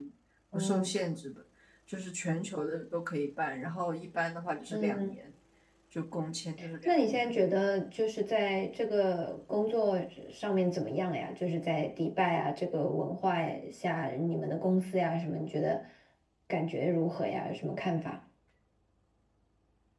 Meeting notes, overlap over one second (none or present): none